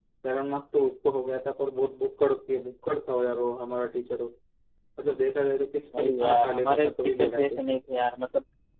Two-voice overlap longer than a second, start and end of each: 6.0-7.6

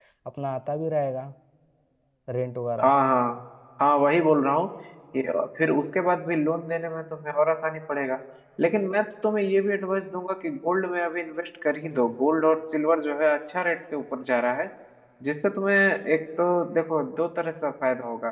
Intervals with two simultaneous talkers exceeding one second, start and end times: none

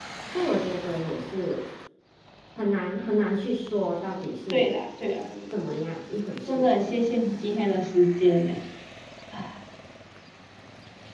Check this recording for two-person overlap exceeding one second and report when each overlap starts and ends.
none

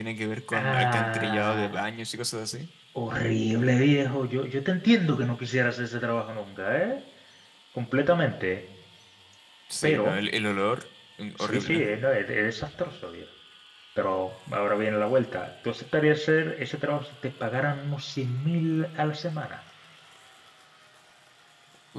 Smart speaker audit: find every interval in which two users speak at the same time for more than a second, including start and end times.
0.5-1.8

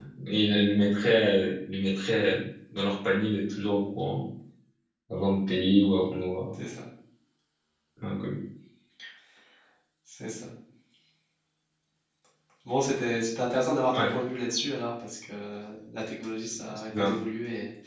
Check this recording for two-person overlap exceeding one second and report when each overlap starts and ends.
none

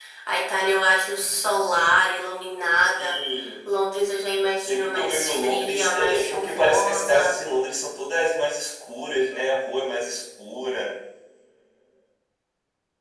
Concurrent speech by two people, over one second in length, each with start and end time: 4.6-7.4

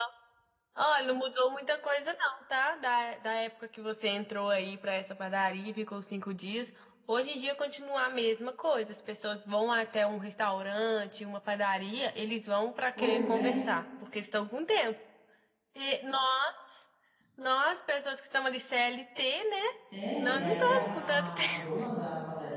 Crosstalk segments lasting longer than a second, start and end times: 20.2-21.8

